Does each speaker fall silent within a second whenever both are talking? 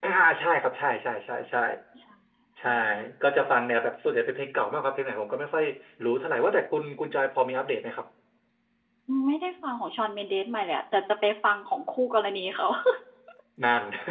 Yes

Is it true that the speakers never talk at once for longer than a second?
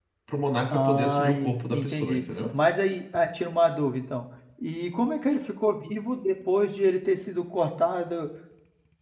No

